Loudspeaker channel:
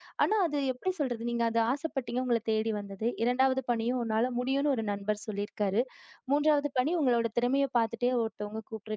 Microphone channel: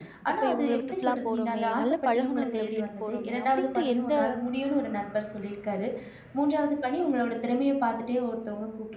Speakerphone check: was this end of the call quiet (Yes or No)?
No